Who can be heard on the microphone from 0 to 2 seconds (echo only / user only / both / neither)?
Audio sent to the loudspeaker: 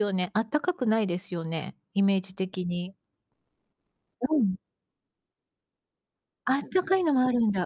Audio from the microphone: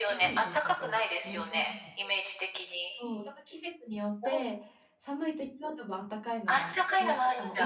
both